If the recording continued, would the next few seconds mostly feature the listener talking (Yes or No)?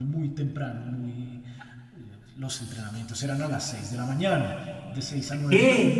Yes